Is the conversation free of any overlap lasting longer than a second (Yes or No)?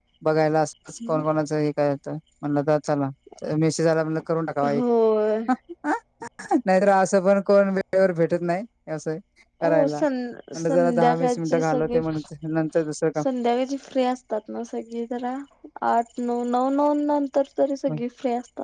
No